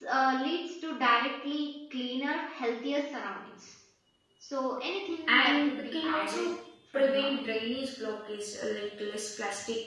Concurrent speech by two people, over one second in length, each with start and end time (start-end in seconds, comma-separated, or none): 5.3-6.5